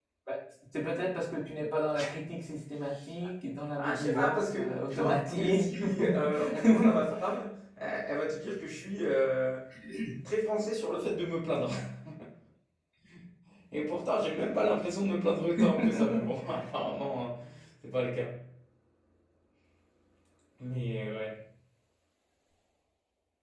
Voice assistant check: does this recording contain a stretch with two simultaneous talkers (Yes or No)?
Yes